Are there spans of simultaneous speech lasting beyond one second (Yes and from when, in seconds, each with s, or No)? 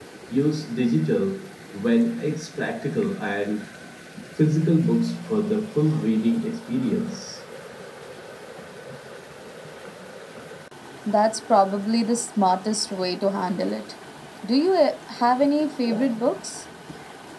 No